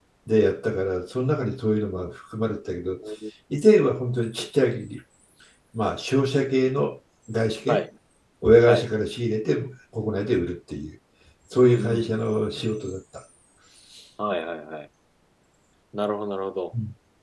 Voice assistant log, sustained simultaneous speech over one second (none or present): none